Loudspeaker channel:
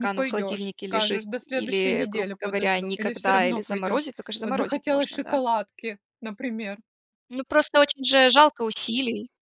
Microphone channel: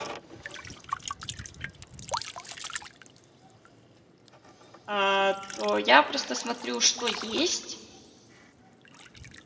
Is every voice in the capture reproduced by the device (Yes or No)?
No